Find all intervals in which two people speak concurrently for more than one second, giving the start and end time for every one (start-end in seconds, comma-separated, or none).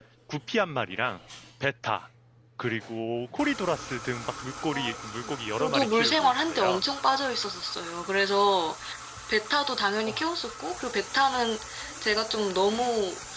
5.6-6.8